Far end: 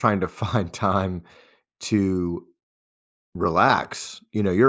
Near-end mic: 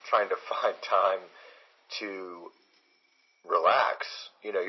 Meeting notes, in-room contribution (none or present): none